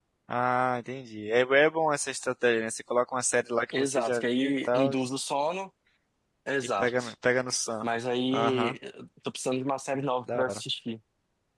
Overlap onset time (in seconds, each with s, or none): 3.7 s